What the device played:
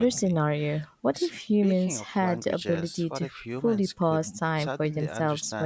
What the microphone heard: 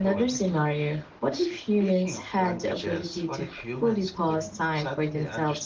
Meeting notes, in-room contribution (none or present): none